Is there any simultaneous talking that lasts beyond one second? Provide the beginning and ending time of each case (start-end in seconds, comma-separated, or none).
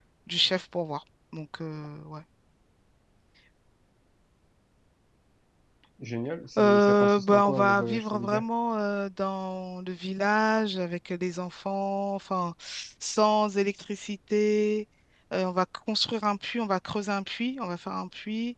6.6-8.4